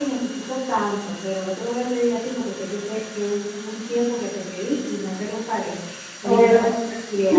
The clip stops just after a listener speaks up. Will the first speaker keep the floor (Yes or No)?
Yes